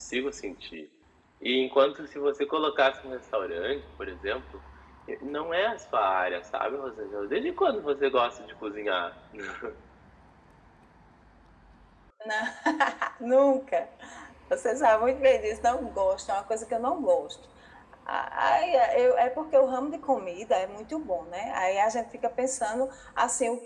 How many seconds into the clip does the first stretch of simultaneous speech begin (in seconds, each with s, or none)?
none